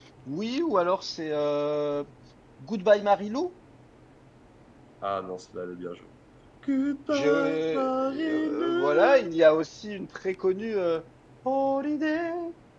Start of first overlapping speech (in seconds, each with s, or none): 7.1 s